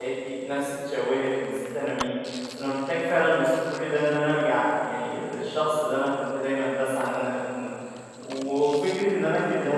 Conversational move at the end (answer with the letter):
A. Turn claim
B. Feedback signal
B